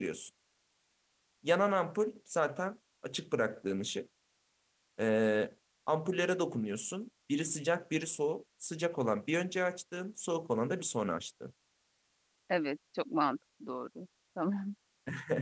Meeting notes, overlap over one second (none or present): none